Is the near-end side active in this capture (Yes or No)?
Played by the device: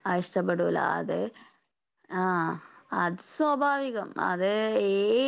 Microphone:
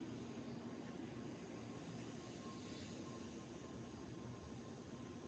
No